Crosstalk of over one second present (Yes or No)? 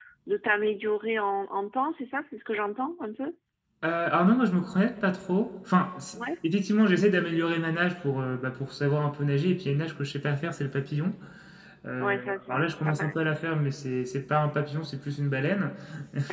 Yes